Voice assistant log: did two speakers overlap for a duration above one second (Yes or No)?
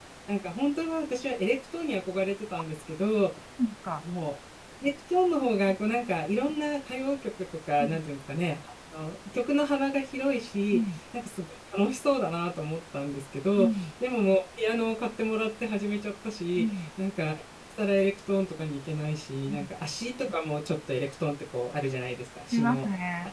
No